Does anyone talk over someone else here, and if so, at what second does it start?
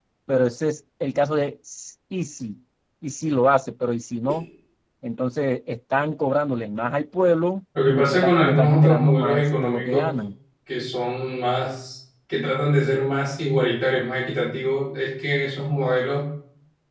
7.8 s

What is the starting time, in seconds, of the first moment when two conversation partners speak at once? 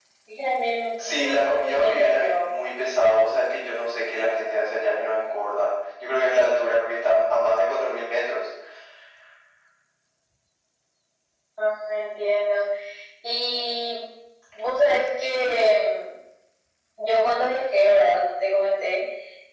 1.0 s

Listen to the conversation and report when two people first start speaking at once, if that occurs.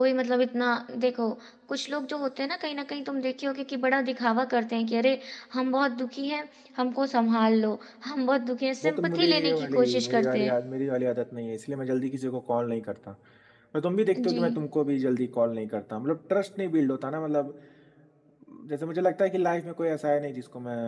8.8 s

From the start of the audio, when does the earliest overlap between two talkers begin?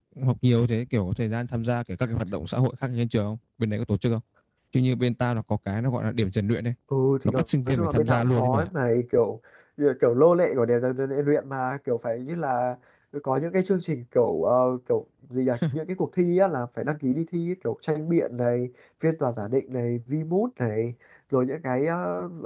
7.2 s

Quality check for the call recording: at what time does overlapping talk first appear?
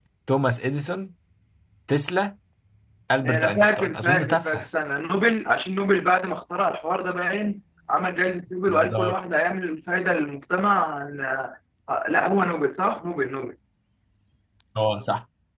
3.2 s

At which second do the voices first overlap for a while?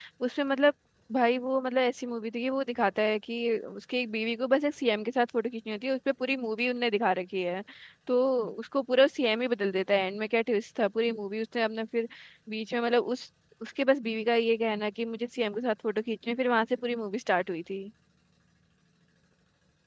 none

